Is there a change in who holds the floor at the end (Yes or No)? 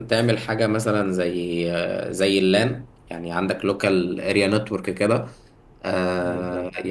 No